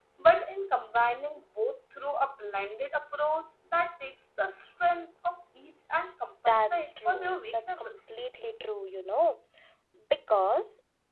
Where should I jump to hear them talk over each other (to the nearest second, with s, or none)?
6 s